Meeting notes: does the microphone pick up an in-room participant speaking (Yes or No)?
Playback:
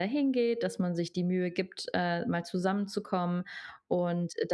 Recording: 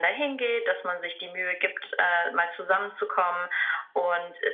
No